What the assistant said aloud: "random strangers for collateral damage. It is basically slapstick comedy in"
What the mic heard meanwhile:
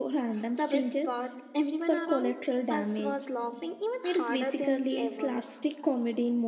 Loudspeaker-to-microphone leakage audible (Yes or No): Yes